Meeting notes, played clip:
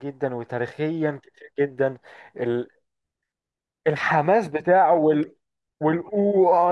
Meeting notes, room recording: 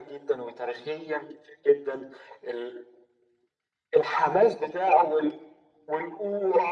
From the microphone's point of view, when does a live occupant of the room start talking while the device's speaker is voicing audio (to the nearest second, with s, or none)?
none